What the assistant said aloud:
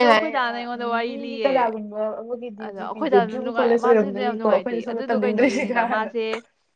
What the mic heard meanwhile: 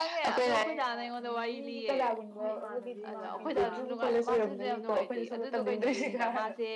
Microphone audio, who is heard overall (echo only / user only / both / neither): both